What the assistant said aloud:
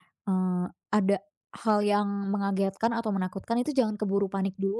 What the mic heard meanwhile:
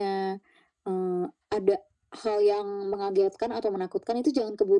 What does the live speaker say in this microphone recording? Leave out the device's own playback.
none

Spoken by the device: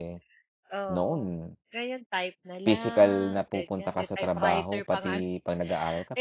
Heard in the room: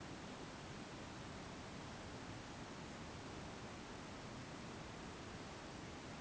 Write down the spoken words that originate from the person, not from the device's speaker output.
none

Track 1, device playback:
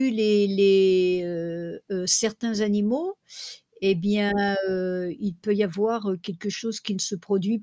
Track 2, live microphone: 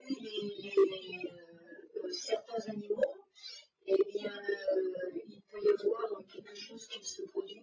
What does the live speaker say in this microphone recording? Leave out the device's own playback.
none

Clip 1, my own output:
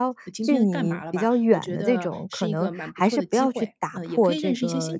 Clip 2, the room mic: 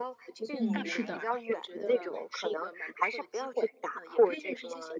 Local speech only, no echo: 嗯，是的。

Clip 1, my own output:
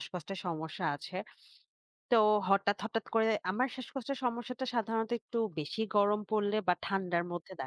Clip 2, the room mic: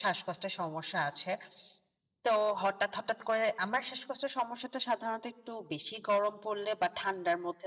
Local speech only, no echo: none

